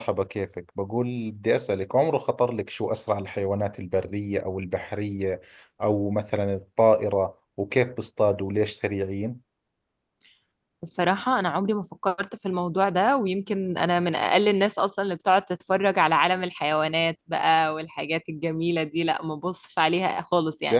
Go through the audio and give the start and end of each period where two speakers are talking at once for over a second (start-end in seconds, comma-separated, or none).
none